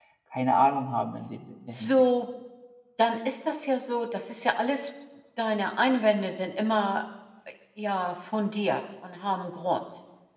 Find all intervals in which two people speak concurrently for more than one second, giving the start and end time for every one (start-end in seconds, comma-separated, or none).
none